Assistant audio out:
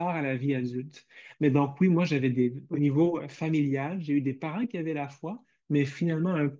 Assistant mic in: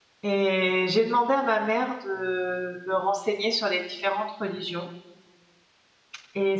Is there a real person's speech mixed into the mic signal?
Yes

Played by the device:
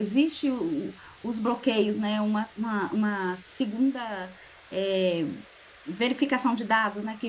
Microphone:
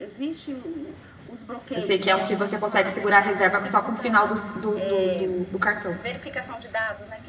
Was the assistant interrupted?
Yes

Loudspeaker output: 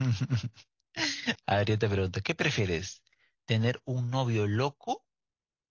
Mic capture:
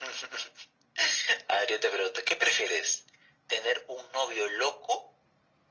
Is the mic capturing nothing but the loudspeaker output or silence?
Yes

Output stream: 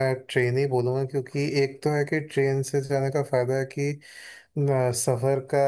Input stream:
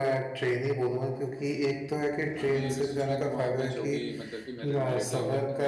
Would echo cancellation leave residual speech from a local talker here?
Yes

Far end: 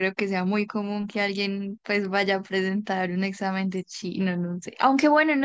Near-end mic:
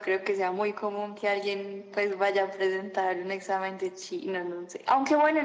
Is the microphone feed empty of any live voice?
Yes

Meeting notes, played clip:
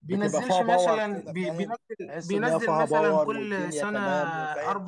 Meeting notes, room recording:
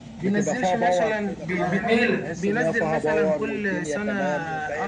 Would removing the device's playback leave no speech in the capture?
No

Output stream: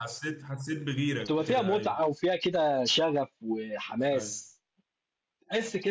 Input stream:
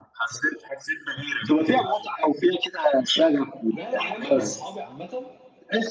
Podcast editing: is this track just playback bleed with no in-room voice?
No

